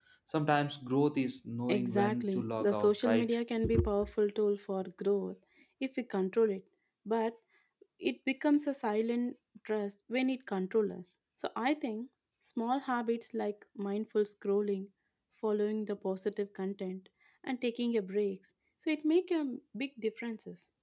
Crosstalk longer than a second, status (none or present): present